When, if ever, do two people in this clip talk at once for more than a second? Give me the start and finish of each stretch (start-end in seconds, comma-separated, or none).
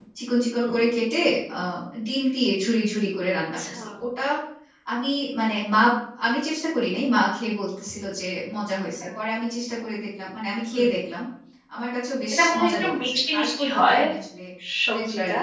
12.3-14.0